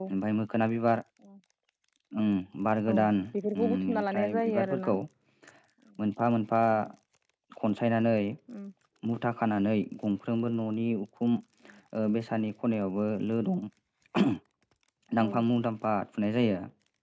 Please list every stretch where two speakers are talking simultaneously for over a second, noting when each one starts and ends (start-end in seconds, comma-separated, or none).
3.6-5.0